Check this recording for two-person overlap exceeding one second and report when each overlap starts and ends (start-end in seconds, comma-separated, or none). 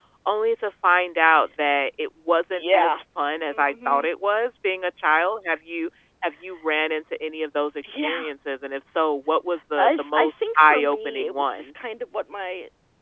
9.8-11.7